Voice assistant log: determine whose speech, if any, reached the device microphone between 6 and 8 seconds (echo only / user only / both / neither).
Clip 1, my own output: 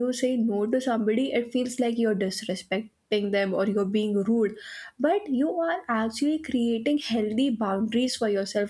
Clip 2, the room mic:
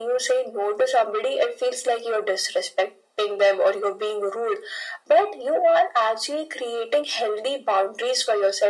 echo only